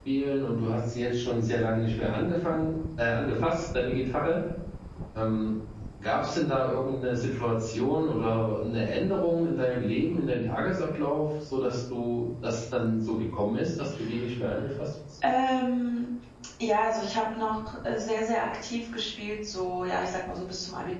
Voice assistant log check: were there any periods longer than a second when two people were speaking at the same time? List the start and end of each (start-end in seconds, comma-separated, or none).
none